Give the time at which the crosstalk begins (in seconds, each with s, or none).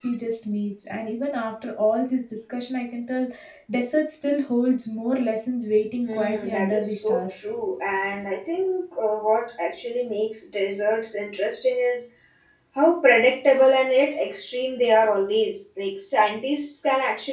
6.0 s